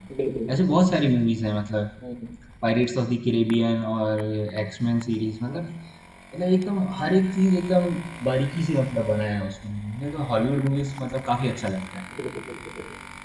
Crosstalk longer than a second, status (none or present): none